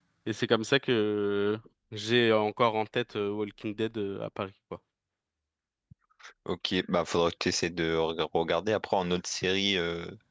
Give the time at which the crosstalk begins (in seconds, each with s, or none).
none